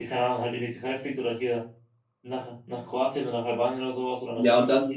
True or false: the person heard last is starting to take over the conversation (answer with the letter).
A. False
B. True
B